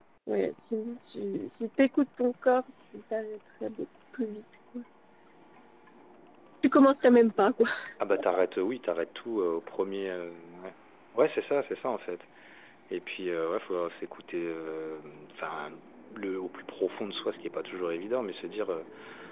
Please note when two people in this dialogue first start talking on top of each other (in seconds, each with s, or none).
none